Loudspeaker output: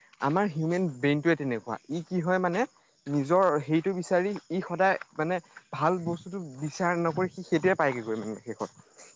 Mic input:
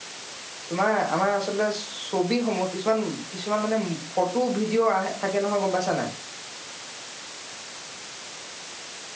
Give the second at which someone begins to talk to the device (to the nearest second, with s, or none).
1 s